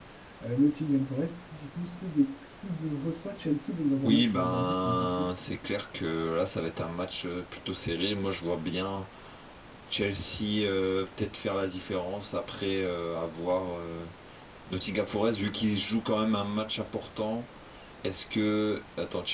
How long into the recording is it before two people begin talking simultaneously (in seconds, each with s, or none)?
4.0 s